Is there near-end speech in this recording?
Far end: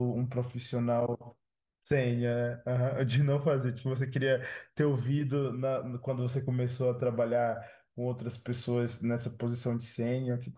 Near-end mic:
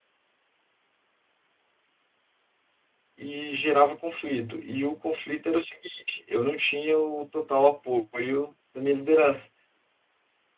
Yes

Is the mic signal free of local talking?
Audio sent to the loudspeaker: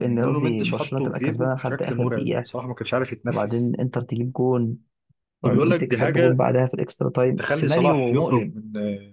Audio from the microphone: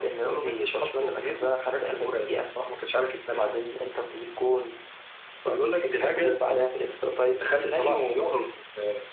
Yes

